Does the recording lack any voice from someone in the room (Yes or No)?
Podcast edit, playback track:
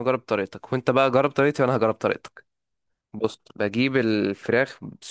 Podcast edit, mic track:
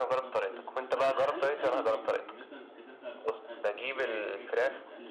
No